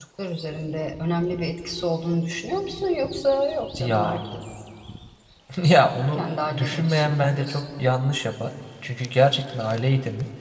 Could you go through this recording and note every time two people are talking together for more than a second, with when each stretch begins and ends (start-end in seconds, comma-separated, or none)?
6.2-7.6